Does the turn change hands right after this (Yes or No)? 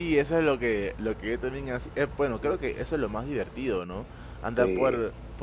No